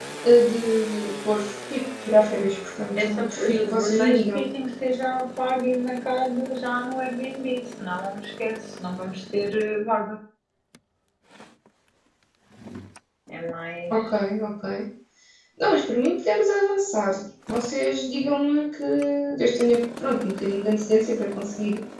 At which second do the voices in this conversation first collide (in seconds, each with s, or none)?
3.0 s